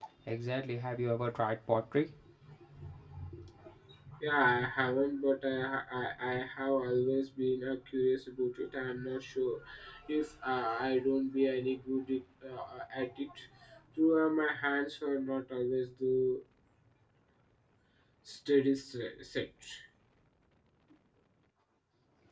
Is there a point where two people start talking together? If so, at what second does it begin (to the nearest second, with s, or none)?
none